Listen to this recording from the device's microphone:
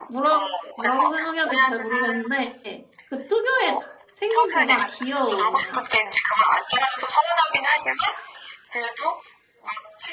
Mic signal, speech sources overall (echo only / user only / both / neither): both